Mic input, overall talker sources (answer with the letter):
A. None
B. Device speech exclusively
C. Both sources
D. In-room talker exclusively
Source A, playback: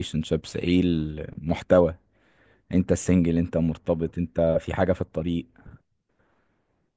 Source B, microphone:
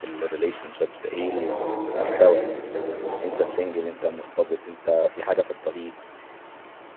C